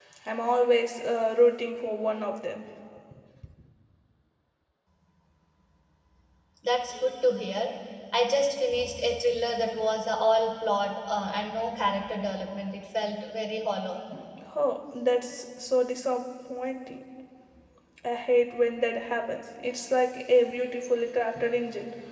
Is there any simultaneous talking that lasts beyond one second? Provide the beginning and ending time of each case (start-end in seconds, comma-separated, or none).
none